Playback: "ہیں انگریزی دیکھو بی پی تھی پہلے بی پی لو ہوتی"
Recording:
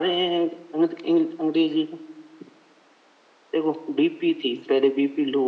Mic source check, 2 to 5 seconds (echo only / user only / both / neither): echo only